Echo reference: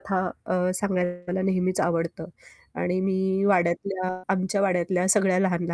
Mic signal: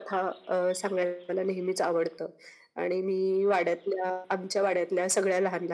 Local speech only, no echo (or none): none